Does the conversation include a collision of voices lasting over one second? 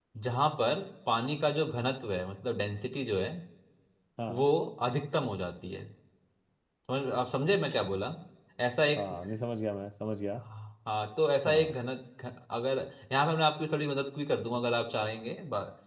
No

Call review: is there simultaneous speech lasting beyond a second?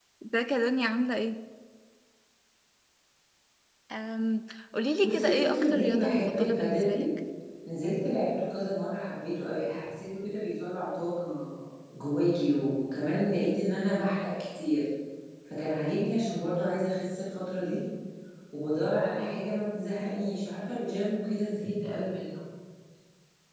Yes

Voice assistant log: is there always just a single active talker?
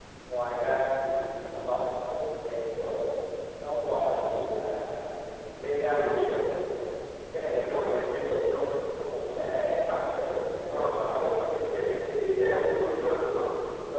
No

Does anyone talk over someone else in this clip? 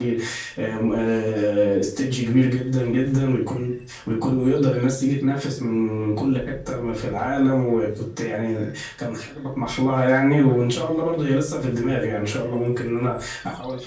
No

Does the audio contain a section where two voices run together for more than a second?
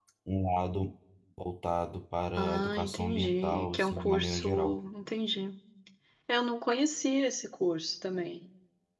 Yes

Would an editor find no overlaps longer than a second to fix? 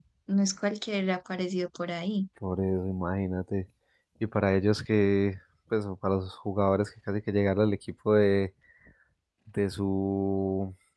Yes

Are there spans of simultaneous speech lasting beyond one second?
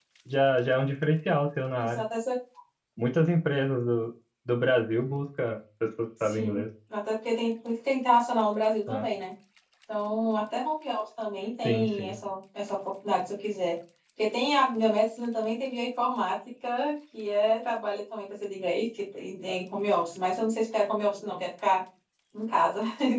No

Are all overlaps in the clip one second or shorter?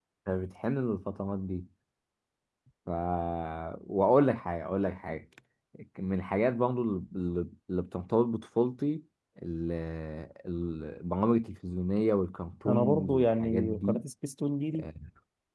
No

